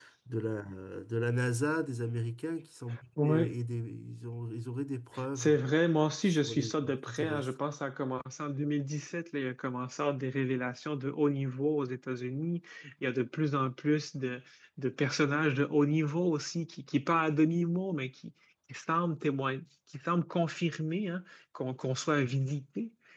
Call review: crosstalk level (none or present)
present